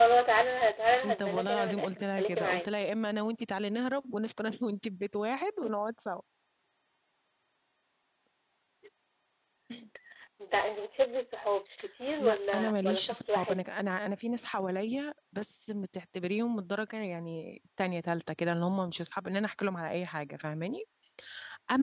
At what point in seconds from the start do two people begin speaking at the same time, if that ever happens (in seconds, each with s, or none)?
1.0 s